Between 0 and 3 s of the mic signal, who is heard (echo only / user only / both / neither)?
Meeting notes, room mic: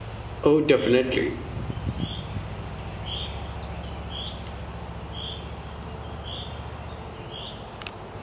user only